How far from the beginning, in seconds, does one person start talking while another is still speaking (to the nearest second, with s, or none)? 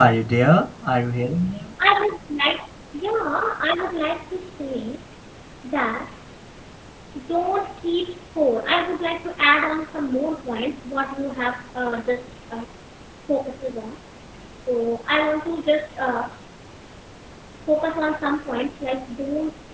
none